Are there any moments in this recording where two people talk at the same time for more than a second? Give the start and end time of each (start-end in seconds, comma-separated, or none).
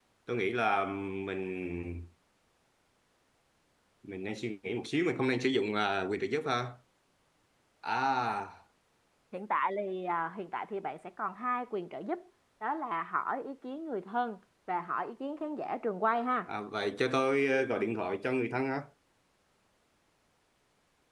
none